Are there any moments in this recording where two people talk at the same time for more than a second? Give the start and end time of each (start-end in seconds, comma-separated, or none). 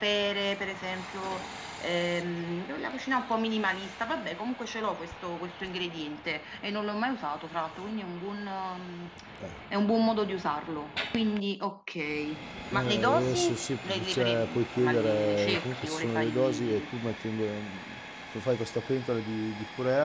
12.7-16.8